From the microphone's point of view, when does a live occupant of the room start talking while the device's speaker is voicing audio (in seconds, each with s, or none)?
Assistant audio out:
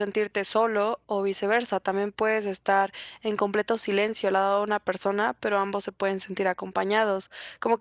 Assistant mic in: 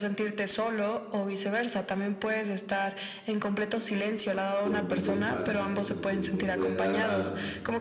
4.6 s